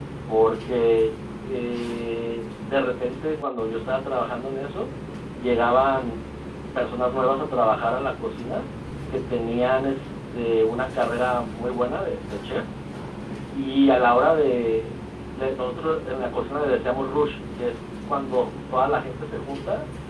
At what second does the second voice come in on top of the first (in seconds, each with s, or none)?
none